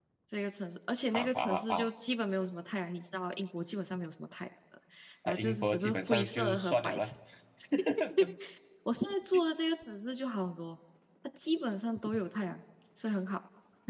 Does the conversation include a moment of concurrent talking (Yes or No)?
Yes